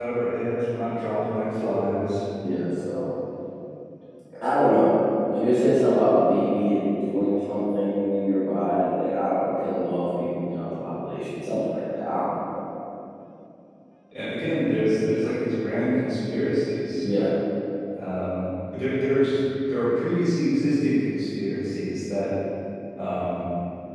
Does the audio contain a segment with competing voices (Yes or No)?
No